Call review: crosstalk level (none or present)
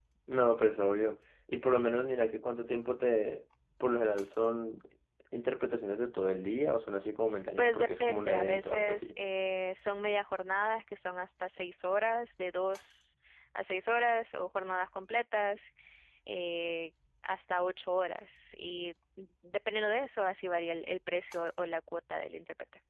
present